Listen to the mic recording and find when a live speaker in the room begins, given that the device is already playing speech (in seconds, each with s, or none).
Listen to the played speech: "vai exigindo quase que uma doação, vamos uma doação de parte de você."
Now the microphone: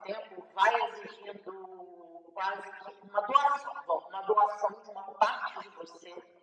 none